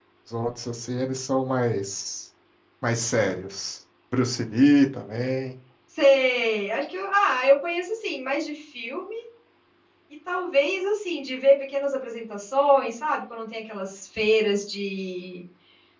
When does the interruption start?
none

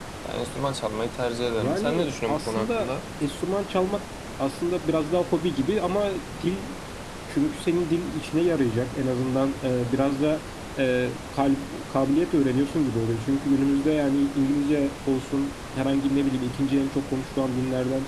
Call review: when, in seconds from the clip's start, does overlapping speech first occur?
1.6 s

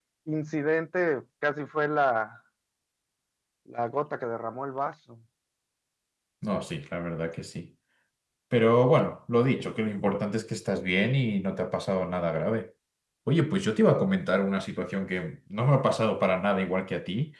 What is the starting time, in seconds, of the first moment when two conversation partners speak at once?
none

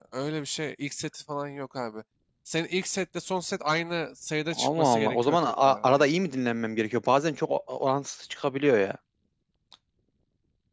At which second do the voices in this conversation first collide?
4.5 s

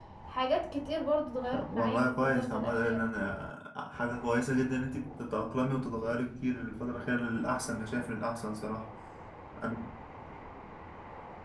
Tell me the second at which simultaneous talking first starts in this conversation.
1.5 s

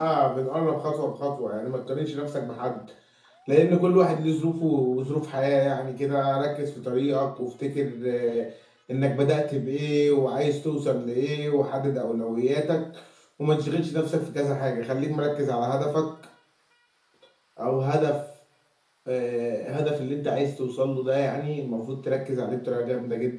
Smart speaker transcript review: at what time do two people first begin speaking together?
none

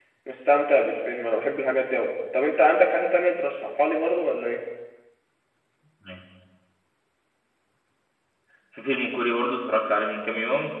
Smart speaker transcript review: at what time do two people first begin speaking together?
none

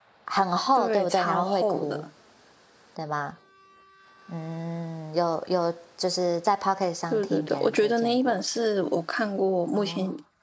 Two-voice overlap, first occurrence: 0.8 s

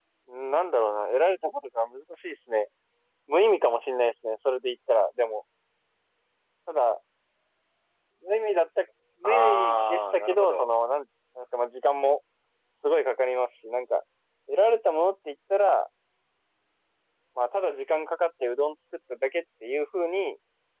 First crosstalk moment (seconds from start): 9.2 s

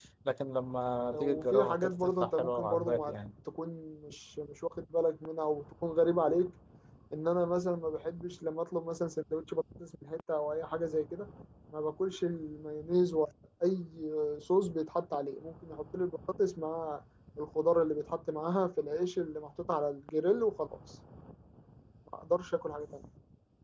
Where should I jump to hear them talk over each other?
1.1 s

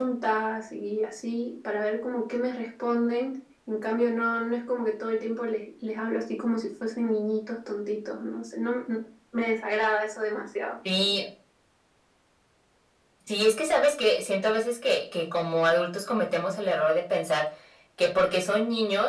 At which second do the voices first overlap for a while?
none

